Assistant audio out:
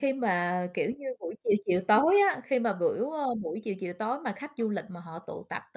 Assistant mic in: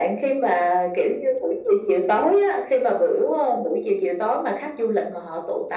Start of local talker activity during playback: none

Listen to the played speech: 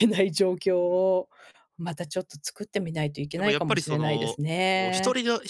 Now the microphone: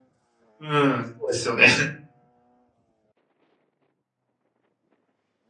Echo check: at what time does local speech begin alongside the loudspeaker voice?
1 s

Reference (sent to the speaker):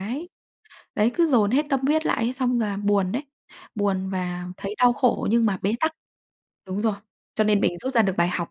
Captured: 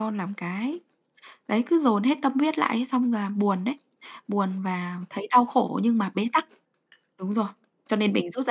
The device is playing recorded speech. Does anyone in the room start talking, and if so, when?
none

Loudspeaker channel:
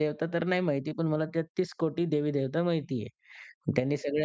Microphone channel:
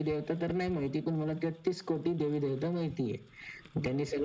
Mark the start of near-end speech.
none

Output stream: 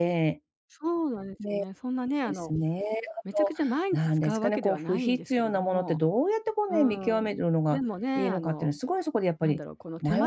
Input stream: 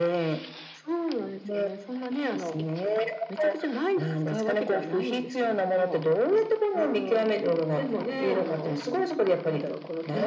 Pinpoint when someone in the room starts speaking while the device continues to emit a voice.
none

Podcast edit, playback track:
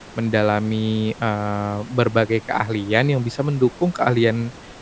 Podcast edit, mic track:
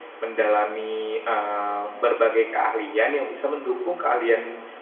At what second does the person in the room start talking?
none

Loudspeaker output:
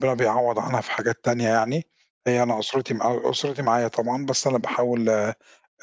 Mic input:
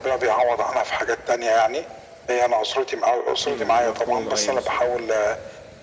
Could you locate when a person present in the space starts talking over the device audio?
3 s

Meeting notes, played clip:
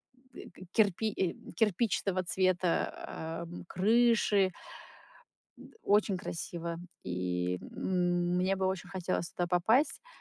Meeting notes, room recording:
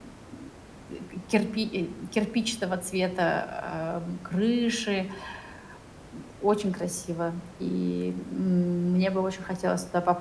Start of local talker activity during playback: none

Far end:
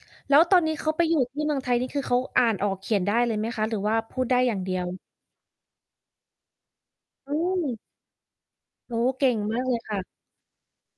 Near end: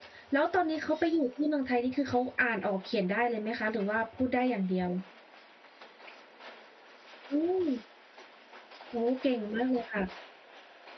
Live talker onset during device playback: none

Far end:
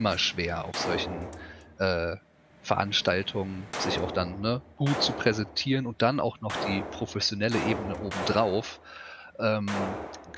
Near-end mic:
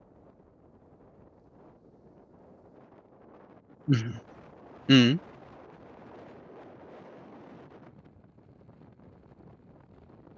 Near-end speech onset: 4 s

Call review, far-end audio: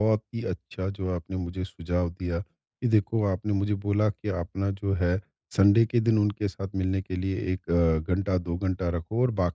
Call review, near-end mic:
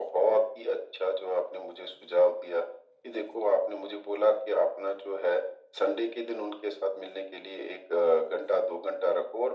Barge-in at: none

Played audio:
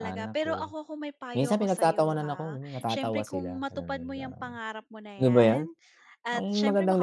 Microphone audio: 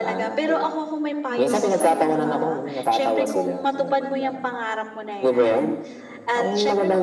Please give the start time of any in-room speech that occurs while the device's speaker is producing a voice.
1 s

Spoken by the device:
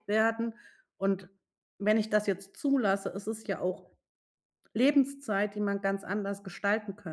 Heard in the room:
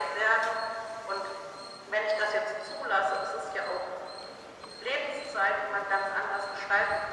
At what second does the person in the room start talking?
none

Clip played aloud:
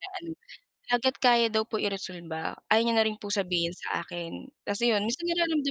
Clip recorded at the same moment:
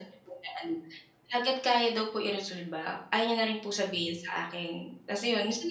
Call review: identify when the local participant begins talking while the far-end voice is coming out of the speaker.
none

